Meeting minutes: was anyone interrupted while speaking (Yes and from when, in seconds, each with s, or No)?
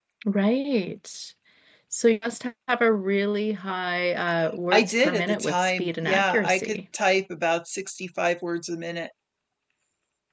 Yes, from 4.7 s